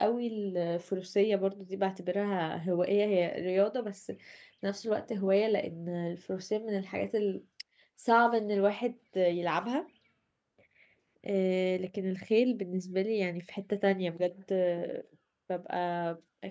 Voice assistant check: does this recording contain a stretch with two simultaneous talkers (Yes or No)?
No